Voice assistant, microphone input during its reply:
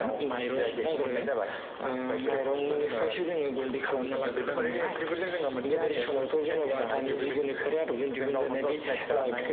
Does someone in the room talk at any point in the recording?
No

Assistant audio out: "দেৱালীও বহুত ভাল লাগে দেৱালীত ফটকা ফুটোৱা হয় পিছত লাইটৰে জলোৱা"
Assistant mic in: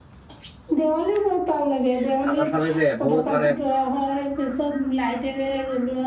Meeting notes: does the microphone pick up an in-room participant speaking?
Yes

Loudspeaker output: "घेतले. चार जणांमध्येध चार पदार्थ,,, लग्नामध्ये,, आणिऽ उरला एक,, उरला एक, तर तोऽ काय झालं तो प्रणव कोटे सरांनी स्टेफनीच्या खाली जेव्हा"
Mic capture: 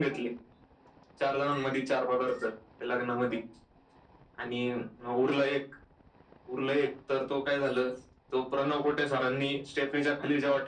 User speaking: No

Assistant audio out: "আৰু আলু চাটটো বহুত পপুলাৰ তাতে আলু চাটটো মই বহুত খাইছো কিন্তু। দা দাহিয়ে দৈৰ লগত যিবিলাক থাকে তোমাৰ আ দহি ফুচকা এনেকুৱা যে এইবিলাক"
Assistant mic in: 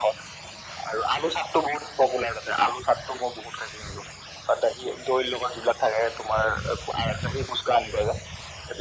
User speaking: No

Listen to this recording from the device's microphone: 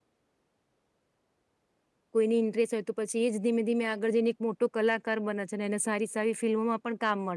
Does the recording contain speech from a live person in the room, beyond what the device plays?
Yes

